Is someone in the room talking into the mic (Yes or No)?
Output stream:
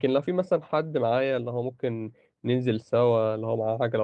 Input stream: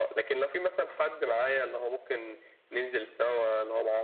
No